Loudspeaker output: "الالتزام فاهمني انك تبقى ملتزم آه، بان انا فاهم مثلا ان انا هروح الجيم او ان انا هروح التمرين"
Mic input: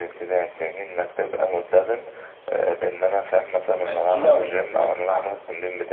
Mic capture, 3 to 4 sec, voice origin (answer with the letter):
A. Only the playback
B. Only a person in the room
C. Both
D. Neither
C